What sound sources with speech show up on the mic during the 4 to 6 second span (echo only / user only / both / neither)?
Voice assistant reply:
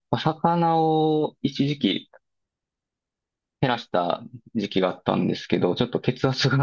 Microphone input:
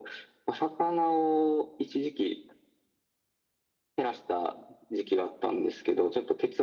echo only